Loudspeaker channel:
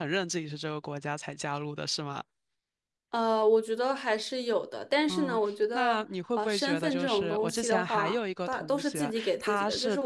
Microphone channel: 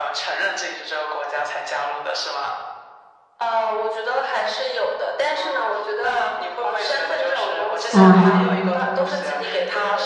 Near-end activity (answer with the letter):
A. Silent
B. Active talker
B